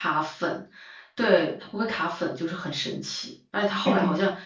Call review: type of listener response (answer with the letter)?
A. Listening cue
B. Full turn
A